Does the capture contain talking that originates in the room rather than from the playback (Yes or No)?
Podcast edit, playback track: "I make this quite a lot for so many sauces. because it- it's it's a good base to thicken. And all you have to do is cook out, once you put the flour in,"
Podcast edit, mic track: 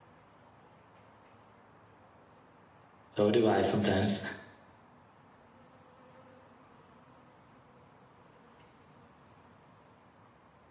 Yes